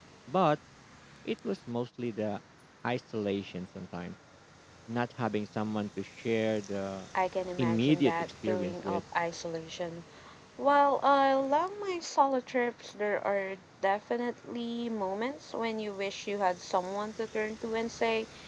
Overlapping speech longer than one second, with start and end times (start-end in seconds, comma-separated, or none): 7.6-9.0